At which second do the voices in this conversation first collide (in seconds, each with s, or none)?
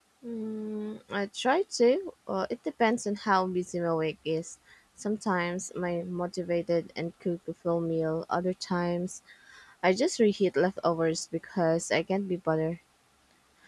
none